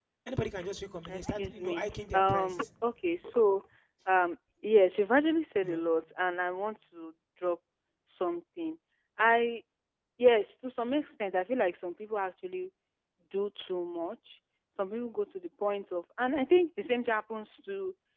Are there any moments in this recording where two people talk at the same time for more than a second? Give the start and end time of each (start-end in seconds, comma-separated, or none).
1.1-2.6